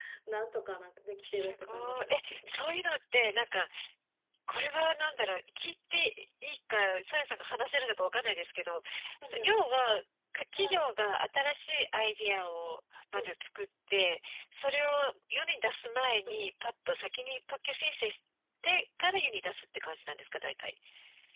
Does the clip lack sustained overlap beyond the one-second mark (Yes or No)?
No